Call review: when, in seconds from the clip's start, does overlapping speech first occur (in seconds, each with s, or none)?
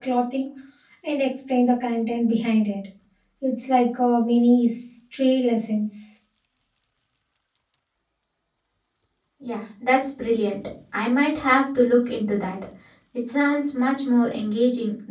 none